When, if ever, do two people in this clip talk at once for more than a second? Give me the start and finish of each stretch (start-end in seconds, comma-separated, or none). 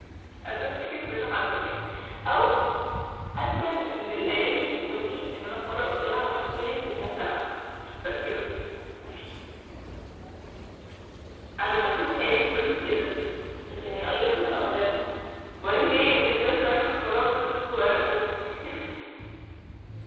11.6-12.9, 13.8-15.0